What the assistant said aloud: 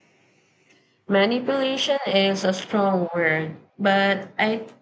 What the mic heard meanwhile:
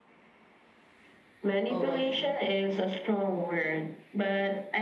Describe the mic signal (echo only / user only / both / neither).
both